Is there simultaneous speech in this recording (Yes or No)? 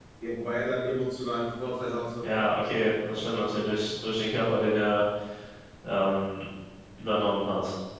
No